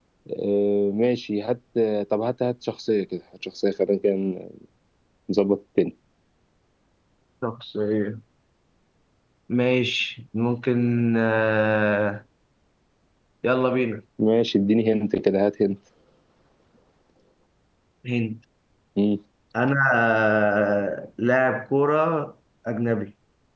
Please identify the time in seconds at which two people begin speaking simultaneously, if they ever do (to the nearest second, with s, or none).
none